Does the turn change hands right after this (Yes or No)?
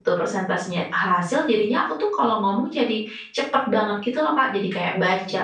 No